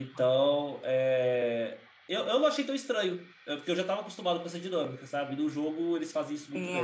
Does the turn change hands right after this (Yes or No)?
Yes